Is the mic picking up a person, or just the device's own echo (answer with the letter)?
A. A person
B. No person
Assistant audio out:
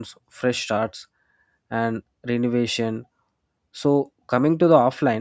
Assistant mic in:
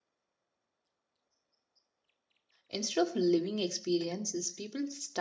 A